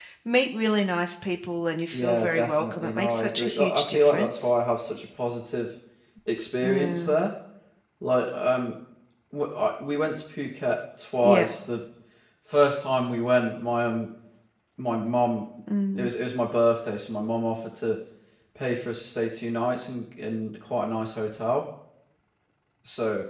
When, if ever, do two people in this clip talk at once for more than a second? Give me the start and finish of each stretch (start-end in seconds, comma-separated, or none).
1.9-4.5